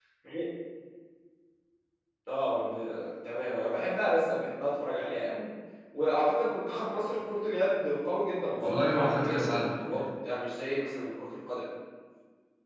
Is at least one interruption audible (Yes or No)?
Yes